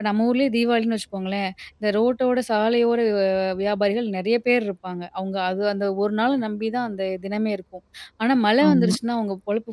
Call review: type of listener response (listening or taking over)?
listening